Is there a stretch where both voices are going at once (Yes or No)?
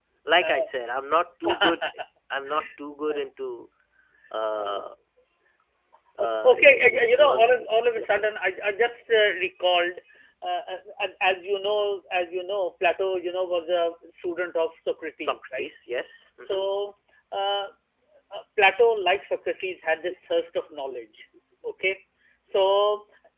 Yes